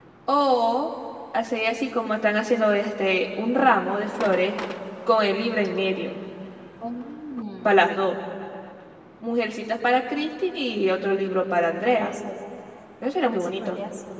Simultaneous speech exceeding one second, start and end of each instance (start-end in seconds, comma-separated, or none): none